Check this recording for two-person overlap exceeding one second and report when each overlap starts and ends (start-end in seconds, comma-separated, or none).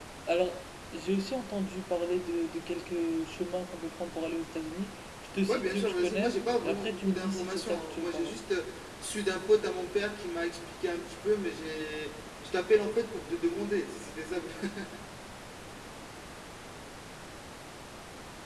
5.5-8.3